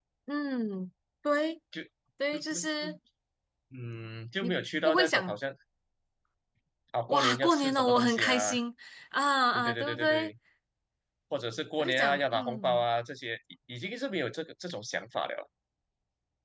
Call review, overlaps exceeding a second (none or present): present